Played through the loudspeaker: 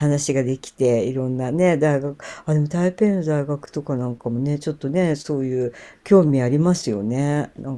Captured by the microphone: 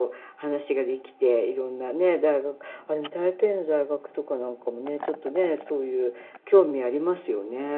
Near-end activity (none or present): none